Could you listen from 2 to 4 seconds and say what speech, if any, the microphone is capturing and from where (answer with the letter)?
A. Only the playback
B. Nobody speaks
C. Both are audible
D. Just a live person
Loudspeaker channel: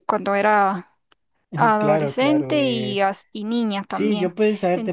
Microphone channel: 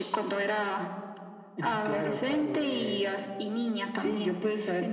A